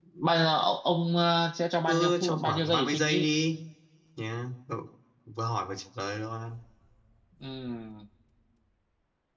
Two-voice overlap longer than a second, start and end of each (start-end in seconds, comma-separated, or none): 1.9-3.3